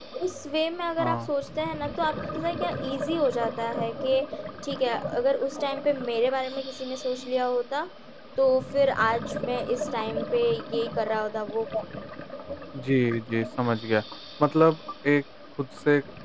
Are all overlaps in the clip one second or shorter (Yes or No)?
Yes